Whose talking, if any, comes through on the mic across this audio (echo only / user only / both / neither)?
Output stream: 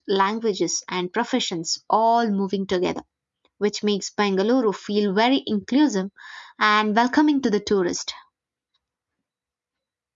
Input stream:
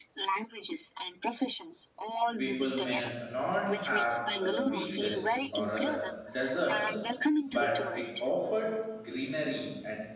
both